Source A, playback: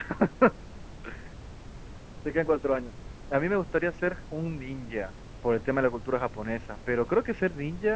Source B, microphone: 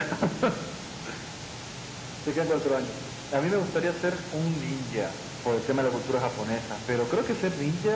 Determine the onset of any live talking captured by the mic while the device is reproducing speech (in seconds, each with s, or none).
none